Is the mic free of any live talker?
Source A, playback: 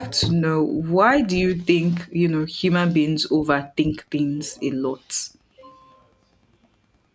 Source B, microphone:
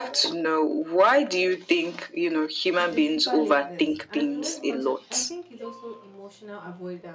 No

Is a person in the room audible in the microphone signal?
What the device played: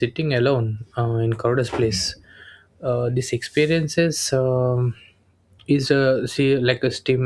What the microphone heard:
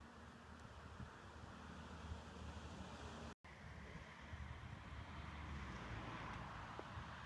No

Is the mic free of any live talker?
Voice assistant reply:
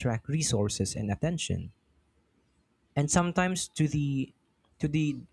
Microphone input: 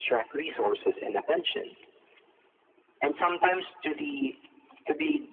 Yes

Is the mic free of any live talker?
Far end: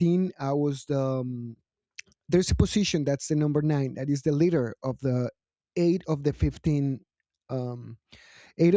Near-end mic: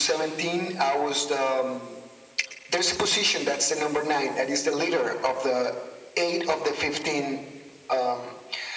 Yes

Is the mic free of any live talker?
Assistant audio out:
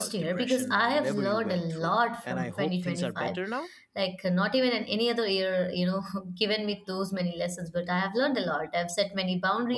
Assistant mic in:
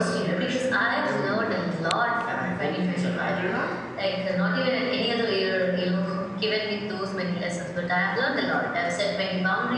Yes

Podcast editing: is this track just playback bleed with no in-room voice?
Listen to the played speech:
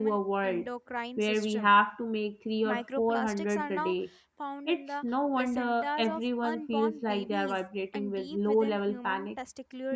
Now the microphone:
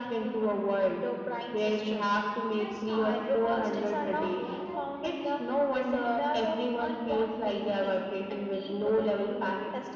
No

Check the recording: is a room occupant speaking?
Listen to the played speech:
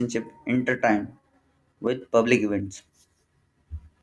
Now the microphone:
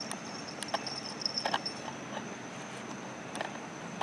No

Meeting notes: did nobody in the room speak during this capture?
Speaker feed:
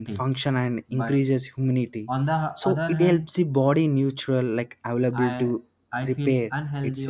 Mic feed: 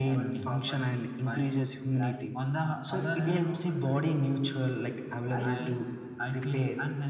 No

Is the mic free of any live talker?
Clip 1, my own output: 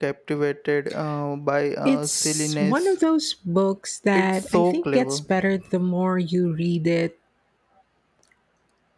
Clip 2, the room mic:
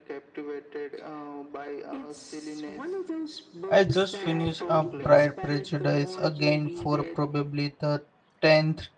No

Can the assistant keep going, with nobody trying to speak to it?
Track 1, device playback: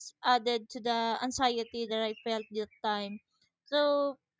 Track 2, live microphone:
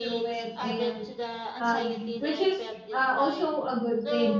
No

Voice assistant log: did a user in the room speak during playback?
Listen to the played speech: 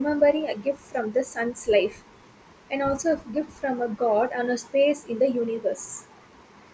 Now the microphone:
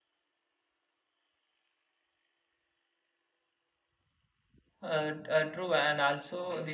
Yes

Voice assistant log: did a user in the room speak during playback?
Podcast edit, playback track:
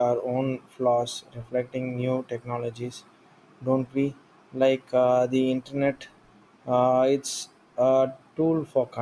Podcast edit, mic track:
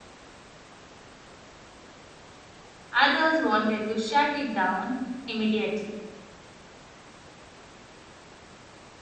Yes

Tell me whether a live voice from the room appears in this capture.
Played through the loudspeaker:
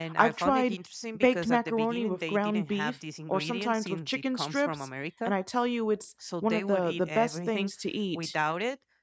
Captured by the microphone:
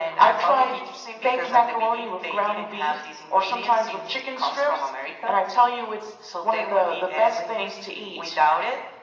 No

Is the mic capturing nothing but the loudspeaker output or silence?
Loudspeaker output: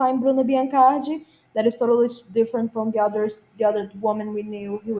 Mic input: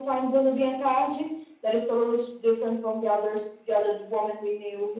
Yes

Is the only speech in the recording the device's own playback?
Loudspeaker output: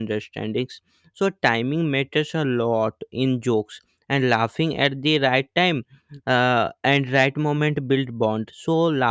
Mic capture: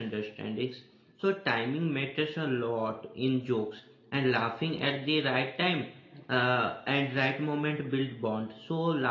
Yes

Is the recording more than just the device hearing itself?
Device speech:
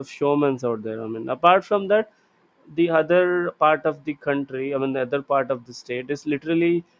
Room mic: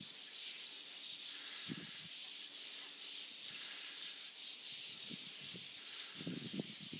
No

